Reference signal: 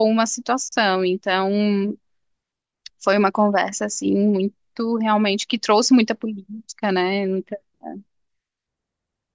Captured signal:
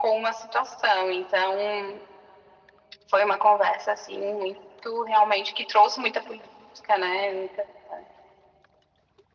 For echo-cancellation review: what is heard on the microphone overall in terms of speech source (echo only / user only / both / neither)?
echo only